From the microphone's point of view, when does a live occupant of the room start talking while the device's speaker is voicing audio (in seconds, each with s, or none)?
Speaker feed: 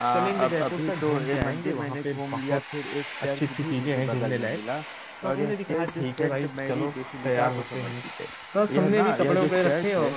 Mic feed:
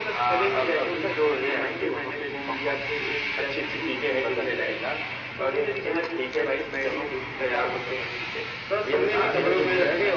9.2 s